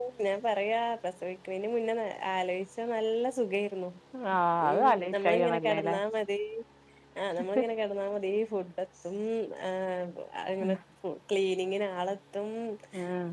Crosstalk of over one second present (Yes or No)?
Yes